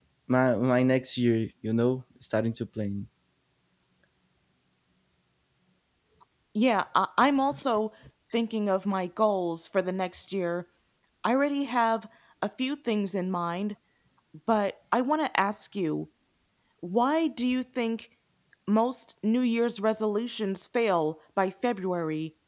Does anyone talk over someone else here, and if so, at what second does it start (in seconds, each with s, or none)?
none